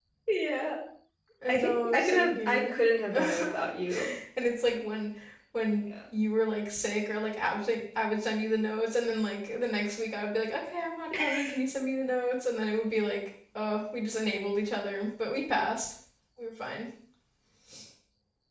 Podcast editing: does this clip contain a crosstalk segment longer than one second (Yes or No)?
Yes